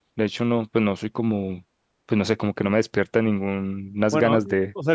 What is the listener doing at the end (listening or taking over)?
taking over